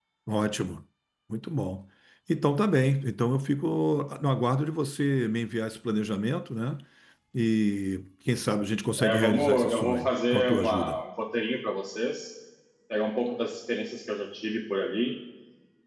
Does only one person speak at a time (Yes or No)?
No